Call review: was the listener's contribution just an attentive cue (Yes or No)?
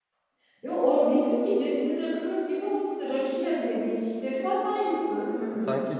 No